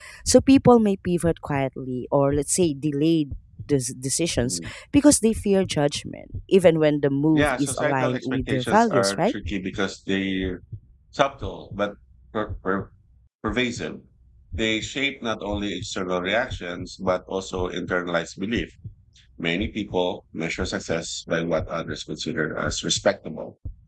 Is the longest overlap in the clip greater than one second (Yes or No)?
Yes